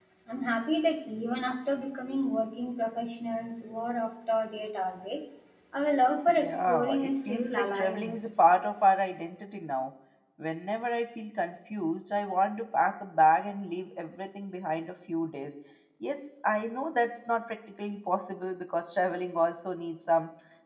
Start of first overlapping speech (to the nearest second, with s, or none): 6 s